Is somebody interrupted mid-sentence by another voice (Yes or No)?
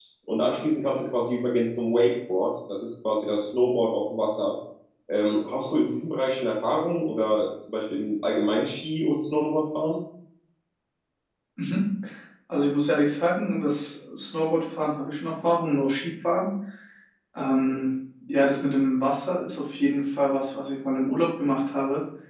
No